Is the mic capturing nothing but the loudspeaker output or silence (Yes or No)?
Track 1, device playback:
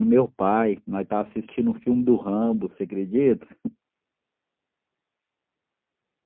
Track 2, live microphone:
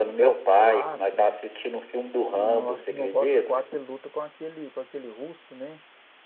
No